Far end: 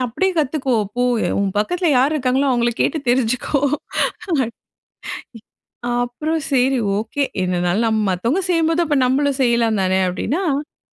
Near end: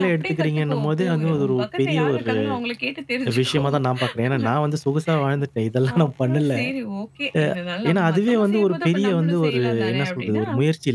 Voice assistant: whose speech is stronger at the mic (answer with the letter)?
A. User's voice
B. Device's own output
A